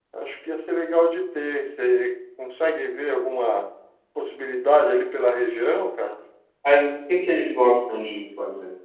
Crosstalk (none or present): none